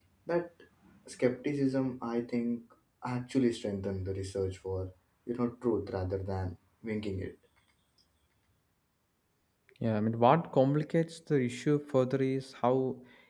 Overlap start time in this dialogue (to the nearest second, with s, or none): none